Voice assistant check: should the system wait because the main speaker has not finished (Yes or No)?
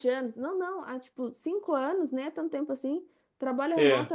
Yes